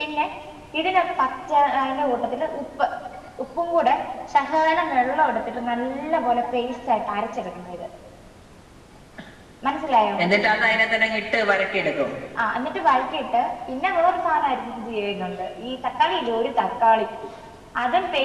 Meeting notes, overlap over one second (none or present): none